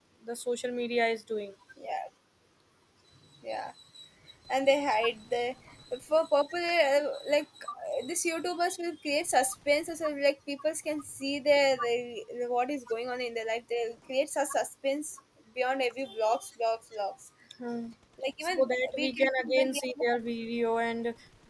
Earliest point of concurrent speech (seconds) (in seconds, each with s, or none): 18.4 s